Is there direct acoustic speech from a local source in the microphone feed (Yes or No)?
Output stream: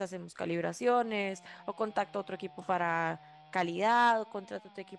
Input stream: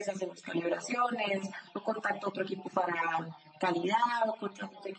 No